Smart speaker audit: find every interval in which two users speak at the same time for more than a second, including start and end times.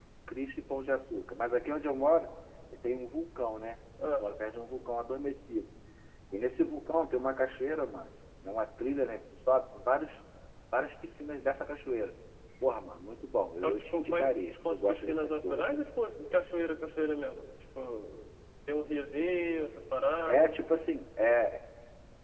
13.6-15.6

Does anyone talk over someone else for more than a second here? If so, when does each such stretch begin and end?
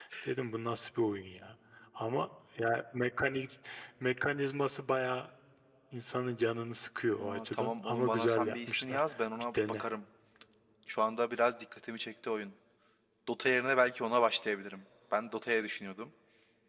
7.2-9.0

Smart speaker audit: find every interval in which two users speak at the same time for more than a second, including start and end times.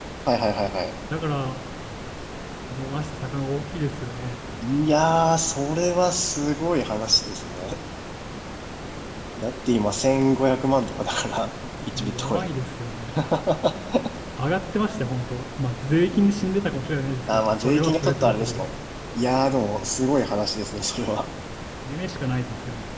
17.3-18.7

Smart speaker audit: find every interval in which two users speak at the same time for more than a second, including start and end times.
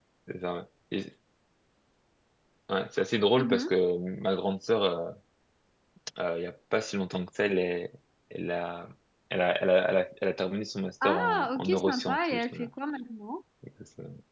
11.0-12.7

